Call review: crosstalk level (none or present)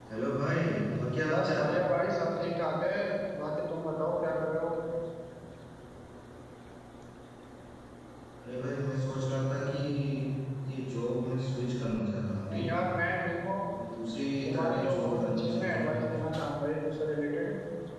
present